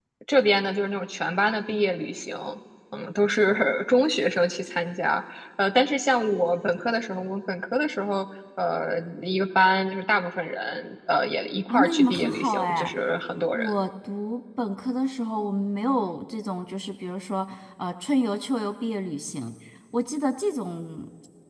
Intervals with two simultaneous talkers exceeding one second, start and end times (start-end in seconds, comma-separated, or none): 11.7-12.9